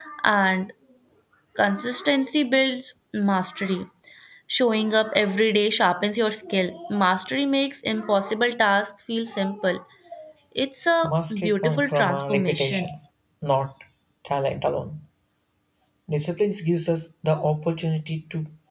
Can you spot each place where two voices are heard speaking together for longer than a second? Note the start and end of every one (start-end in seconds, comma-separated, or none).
11.0-12.9